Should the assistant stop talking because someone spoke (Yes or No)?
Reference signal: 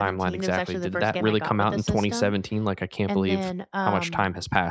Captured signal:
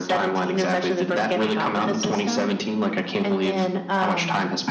No